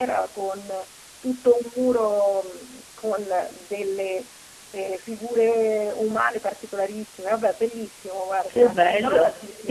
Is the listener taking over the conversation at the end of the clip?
Yes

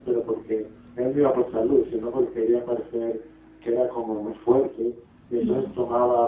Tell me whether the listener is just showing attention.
Yes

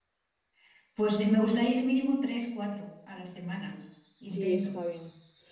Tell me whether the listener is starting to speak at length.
Yes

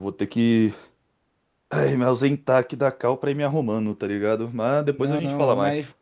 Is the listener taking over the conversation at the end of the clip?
Yes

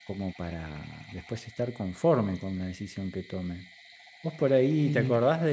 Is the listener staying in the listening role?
Yes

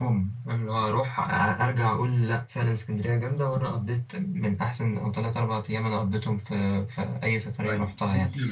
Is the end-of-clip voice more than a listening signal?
Yes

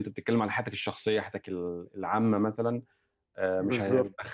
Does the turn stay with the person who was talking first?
Yes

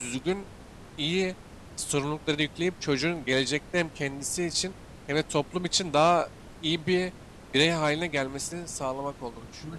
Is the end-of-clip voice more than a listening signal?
Yes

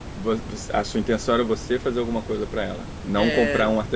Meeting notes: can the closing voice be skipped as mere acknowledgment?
Yes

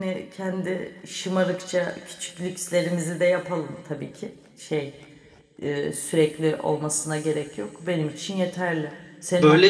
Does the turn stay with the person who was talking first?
Yes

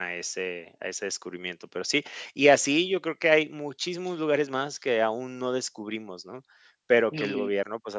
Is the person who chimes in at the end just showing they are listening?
Yes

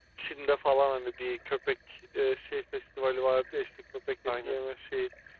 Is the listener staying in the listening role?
Yes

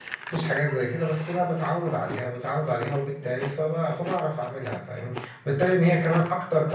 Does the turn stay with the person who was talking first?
Yes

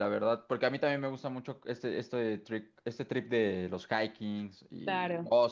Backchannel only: Yes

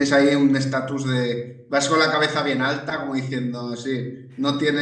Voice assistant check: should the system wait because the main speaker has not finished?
Yes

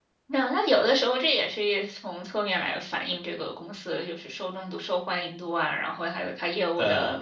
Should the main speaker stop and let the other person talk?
No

